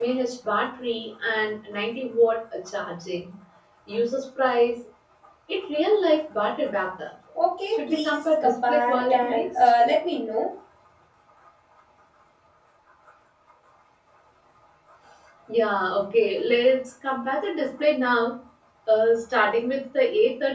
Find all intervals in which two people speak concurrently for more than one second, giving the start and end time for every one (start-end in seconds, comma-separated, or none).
7.7-9.5